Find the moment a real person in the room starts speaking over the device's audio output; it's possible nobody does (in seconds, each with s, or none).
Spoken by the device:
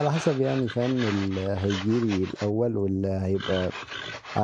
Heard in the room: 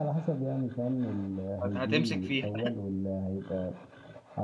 1.6 s